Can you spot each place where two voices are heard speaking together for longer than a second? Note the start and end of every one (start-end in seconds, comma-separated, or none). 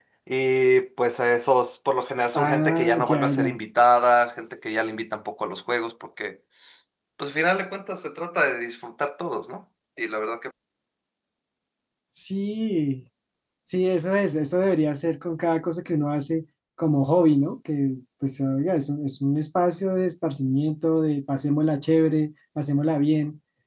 2.3-3.5